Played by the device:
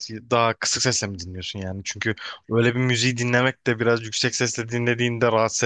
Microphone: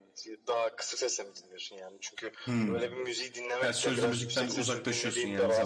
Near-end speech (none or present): present